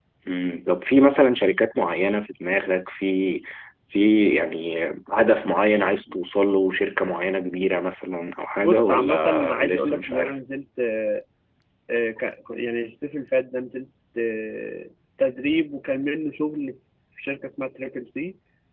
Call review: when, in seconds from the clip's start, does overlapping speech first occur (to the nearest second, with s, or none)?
9 s